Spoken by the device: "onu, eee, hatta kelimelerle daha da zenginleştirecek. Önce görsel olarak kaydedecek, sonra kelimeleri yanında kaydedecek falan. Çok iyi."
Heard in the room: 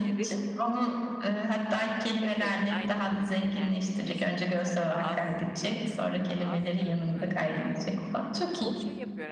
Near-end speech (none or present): present